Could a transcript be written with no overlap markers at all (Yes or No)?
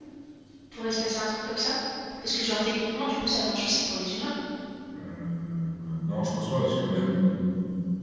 Yes